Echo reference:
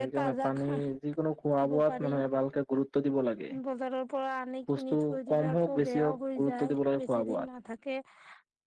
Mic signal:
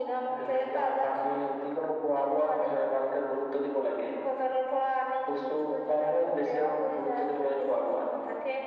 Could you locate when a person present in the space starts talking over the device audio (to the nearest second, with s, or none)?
none